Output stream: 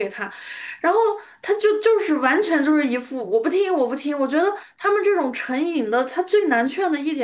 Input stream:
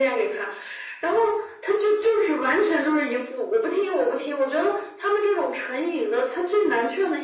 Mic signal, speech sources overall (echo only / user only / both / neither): echo only